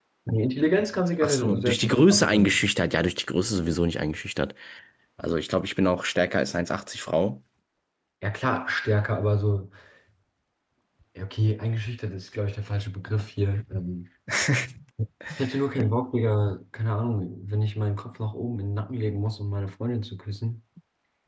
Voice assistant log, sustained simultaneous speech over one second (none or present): present